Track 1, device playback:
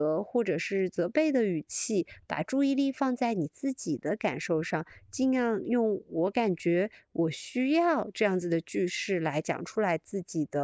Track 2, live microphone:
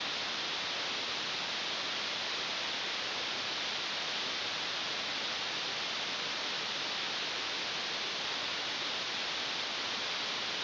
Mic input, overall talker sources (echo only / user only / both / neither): neither